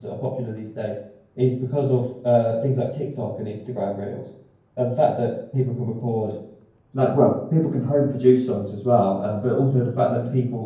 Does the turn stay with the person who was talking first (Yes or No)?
Yes